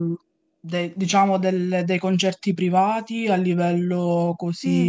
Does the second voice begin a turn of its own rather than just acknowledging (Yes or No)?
Yes